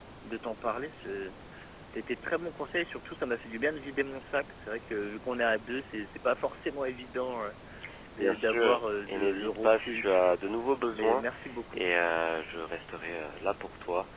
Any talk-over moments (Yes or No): Yes